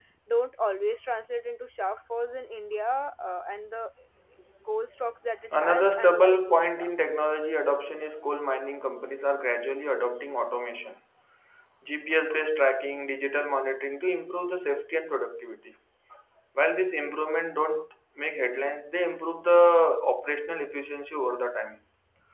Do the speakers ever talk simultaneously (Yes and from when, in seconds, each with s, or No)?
Yes, from 5.5 s